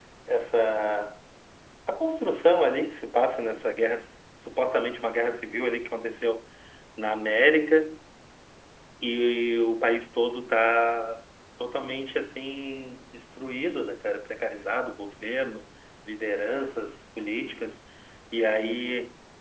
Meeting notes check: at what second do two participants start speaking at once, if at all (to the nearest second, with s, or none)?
none